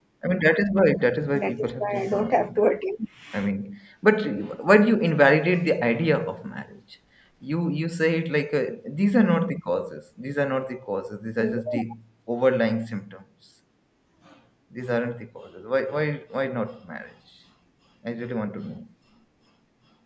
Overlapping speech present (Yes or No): Yes